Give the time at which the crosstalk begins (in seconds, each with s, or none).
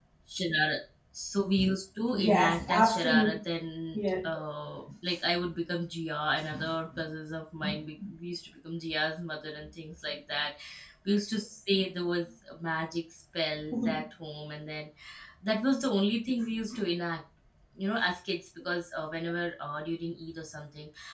2.1 s